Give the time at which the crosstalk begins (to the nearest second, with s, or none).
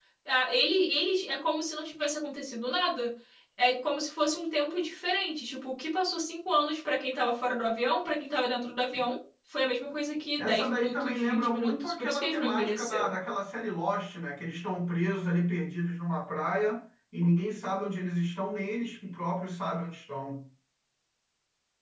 10 s